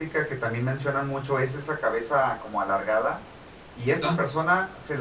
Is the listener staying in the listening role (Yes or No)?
Yes